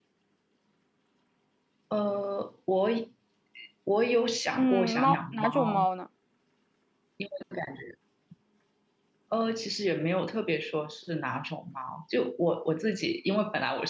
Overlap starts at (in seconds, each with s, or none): 4.6 s